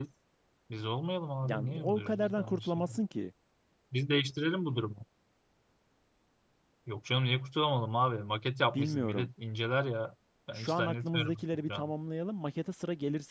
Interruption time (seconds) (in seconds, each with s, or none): 1.5 s